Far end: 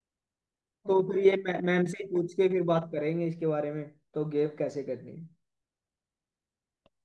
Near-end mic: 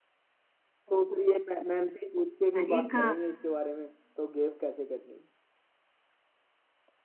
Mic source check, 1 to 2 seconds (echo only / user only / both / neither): echo only